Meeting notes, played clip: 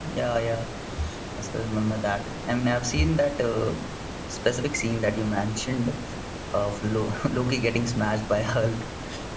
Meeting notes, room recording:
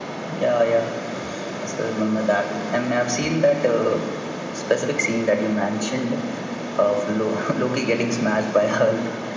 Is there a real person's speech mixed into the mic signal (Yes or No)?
No